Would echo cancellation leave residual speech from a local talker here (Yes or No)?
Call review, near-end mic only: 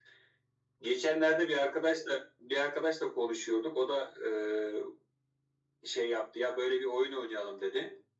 No